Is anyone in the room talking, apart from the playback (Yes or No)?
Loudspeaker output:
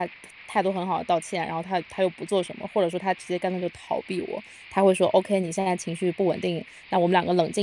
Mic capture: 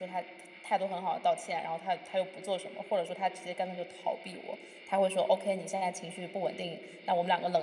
No